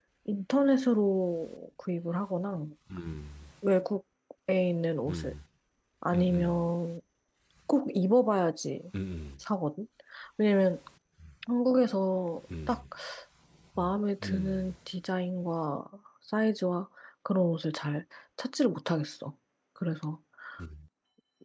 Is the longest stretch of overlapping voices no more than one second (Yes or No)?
Yes